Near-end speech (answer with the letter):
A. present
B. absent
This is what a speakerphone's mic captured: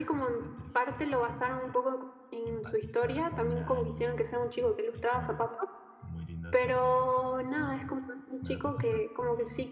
A